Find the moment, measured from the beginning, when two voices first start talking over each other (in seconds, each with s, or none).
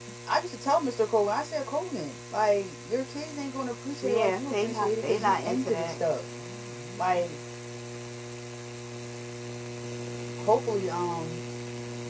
4.0 s